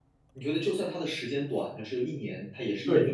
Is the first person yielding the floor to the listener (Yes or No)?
Yes